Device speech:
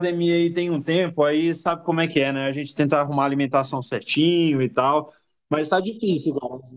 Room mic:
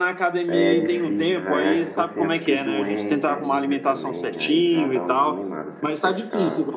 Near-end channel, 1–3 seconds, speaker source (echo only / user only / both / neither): both